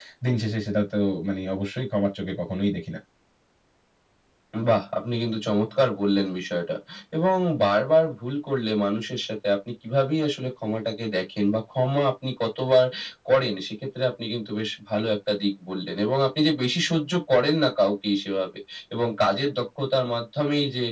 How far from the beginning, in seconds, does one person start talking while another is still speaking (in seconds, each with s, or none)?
none